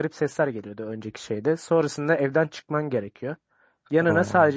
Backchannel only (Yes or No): Yes